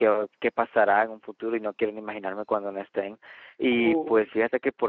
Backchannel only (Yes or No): Yes